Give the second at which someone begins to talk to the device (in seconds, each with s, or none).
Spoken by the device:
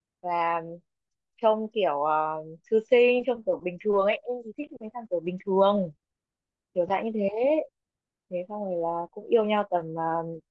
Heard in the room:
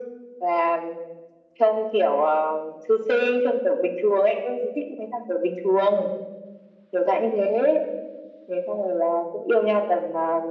none